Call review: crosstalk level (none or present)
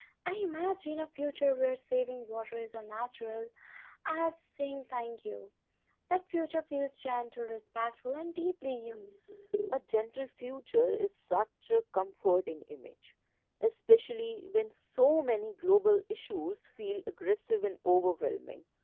none